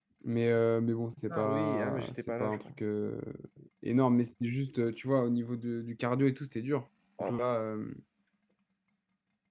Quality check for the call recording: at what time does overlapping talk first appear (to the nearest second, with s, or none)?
1 s